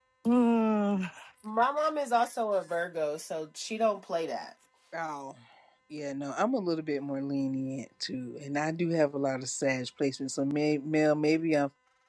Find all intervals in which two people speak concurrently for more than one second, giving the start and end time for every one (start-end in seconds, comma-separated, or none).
none